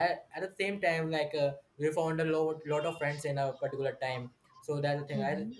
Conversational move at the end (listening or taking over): listening